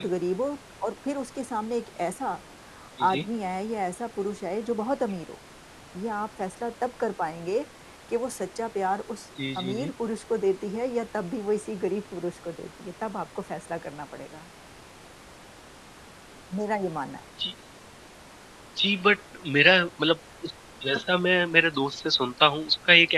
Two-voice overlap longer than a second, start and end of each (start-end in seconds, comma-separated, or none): none